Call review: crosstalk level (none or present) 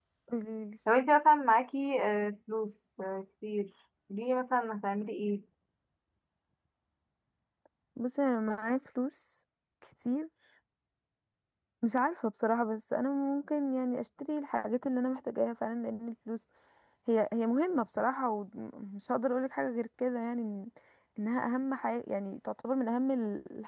none